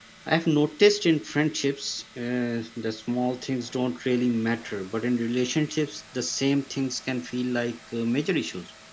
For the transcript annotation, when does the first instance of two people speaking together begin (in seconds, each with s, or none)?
none